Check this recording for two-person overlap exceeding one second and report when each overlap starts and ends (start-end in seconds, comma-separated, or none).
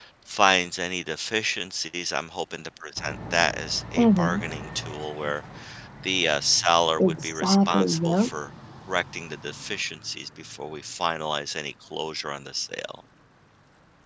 7.0-8.3